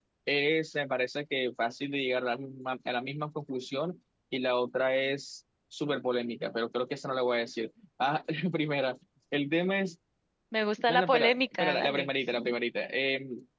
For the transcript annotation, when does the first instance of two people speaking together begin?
10.9 s

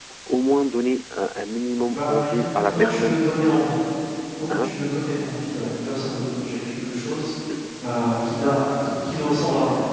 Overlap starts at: 1.9 s

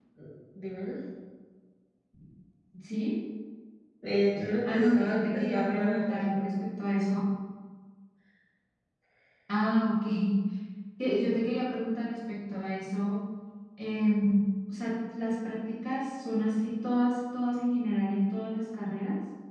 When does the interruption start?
4.6 s

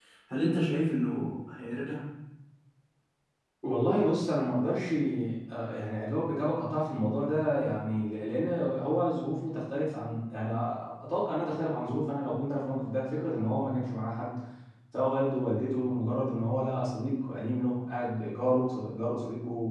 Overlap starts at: none

